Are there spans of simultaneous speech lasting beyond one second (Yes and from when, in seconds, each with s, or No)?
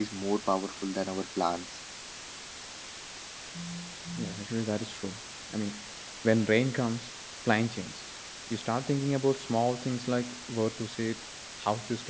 No